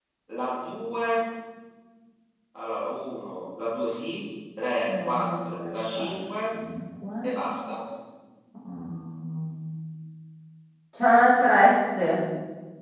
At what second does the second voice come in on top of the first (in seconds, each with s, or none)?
4.8 s